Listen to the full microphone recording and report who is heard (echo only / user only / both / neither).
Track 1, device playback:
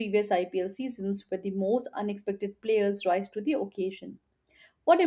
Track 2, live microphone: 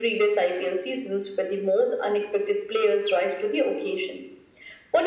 echo only